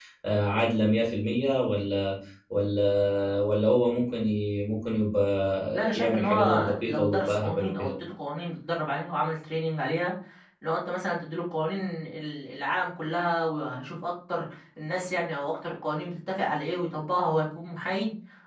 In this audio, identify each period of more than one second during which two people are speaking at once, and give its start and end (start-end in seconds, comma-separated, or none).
5.7-7.9